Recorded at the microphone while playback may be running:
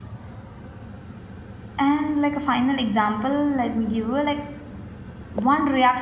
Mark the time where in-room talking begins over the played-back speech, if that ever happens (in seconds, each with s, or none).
1.8 s